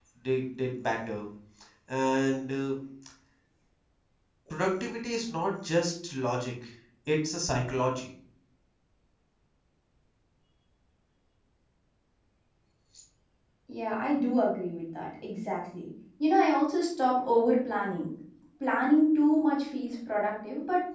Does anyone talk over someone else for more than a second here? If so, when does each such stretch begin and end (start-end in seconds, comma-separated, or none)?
none